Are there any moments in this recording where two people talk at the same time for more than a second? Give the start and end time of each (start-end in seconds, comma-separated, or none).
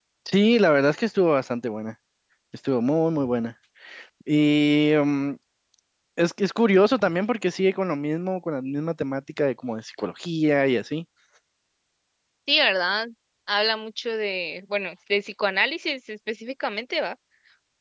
none